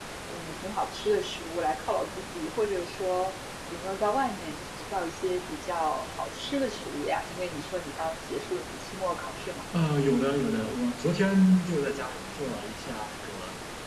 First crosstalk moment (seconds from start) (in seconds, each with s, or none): none